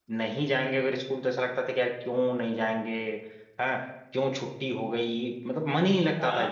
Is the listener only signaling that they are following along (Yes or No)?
No